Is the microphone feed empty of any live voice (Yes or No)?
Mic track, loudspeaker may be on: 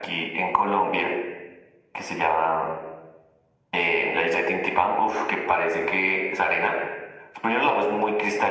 Yes